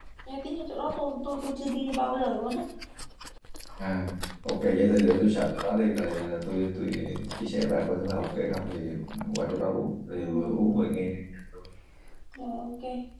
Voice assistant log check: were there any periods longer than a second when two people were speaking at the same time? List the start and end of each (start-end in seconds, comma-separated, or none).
none